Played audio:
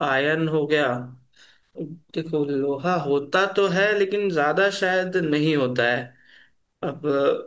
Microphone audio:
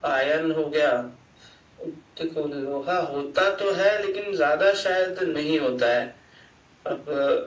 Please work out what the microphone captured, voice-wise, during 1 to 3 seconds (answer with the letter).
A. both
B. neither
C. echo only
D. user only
C